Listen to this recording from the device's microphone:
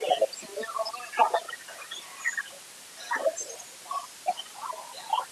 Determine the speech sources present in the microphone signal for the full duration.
echo only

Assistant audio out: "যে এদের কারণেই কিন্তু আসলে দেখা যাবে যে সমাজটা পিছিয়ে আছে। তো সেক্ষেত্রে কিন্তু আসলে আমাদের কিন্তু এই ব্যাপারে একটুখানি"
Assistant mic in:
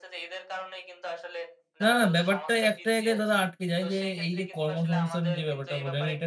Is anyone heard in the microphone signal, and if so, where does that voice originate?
both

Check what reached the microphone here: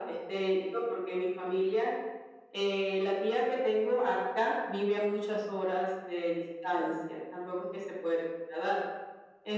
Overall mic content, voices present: echo only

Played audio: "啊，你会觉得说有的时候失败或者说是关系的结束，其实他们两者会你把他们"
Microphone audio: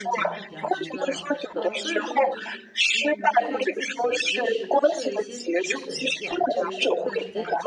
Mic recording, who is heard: both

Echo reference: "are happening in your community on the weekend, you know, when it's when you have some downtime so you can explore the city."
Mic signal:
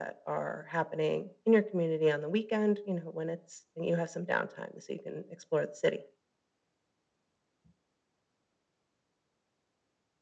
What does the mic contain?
echo only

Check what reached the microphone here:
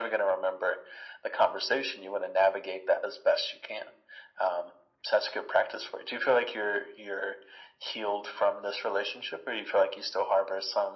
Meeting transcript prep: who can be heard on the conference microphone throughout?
echo only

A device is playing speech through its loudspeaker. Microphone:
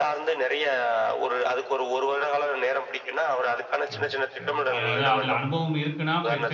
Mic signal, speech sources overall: both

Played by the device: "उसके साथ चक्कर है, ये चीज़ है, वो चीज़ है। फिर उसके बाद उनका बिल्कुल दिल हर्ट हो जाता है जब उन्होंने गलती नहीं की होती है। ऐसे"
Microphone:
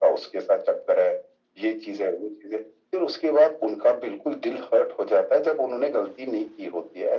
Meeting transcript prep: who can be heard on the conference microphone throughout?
echo only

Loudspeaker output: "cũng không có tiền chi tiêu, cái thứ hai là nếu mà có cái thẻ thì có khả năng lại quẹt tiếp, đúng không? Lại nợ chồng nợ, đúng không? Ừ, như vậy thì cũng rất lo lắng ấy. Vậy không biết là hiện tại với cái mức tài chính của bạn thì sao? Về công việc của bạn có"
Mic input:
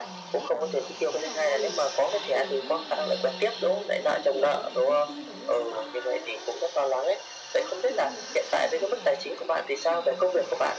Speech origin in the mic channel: both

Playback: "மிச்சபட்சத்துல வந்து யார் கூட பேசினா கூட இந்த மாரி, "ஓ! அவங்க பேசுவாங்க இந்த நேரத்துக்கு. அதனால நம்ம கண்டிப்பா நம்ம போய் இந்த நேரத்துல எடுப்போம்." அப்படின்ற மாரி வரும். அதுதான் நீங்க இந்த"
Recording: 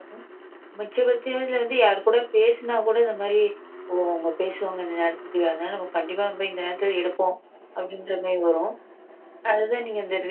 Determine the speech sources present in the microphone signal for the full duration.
echo only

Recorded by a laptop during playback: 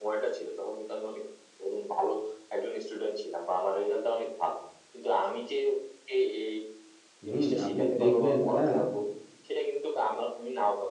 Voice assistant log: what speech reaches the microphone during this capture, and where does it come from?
both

